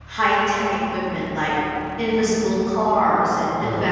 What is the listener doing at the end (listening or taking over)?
listening